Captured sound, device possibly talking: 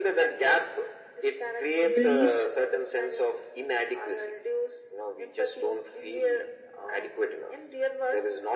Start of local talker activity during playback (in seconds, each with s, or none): 1.9 s